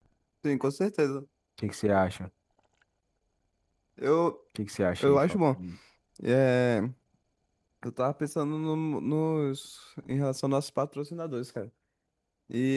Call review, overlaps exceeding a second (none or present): none